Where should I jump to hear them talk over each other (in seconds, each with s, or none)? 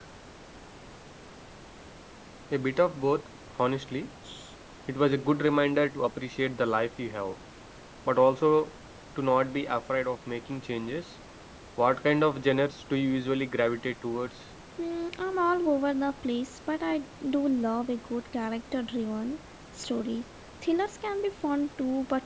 none